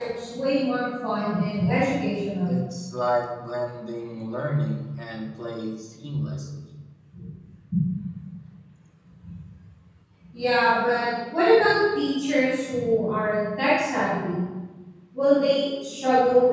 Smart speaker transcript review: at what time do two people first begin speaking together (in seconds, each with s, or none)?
none